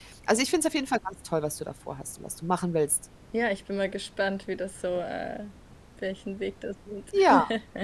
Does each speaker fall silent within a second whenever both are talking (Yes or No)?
Yes